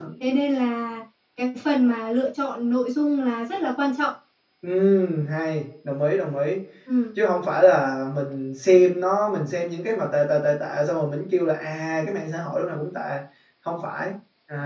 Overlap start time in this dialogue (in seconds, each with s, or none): none